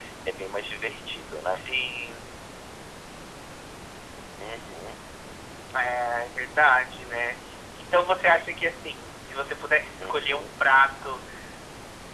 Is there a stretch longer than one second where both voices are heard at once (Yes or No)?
No